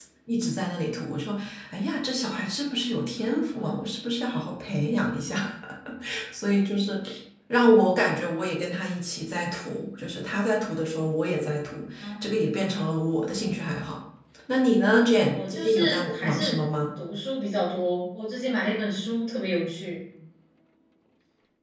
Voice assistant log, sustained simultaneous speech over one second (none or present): present